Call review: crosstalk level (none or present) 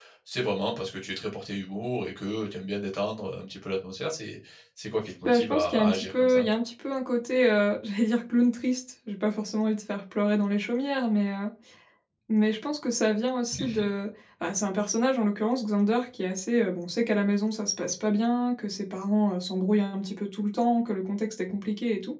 present